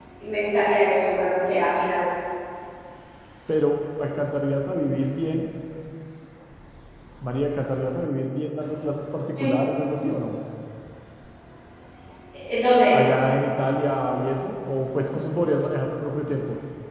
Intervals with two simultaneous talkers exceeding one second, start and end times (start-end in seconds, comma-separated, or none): none